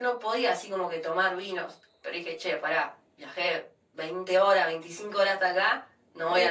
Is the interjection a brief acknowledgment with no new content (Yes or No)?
Yes